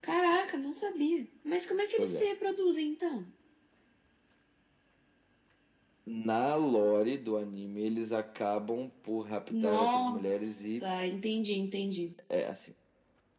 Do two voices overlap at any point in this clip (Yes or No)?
Yes